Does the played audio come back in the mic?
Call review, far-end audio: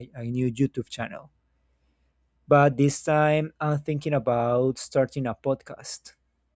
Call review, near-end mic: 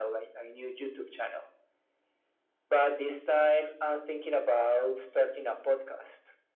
Yes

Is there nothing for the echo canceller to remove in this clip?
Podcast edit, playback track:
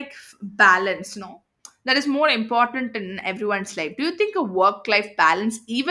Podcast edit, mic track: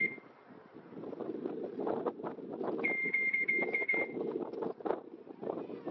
Yes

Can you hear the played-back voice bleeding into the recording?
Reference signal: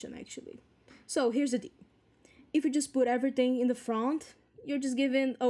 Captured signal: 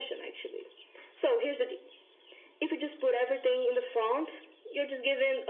Yes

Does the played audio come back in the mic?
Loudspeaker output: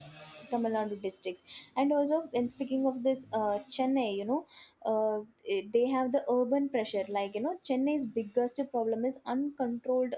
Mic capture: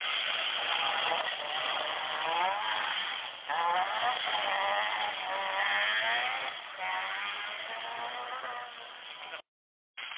No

